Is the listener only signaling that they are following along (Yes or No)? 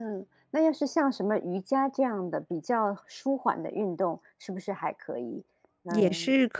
No